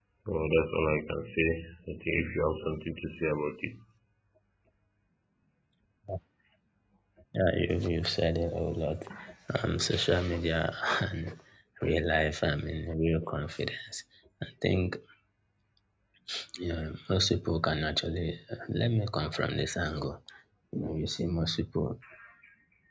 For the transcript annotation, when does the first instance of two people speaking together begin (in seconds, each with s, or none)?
none